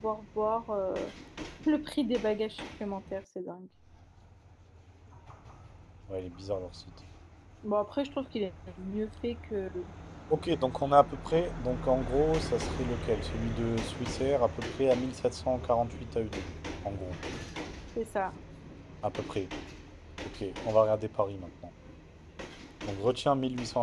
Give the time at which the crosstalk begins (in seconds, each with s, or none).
none